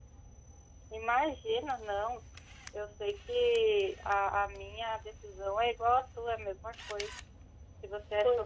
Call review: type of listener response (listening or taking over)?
listening